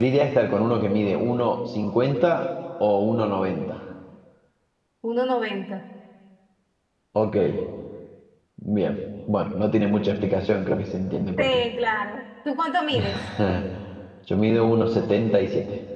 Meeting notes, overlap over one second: none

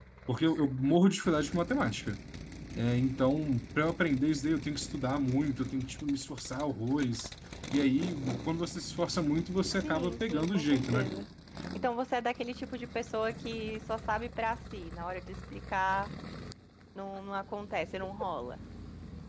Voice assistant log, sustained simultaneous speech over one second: present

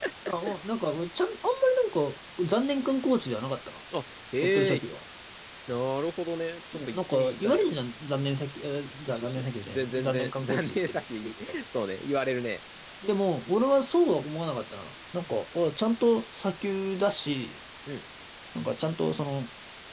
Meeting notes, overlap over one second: present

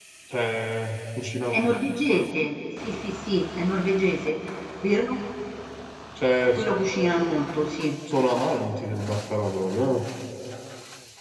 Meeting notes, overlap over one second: none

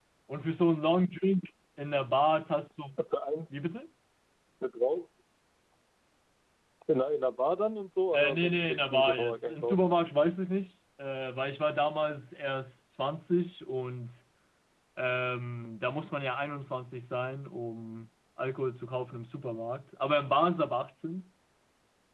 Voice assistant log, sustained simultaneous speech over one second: present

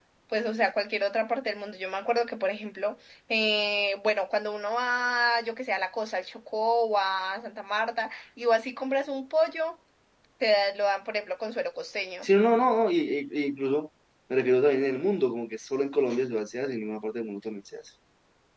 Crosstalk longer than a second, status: none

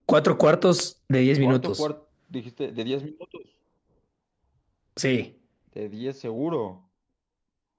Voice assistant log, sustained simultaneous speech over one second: none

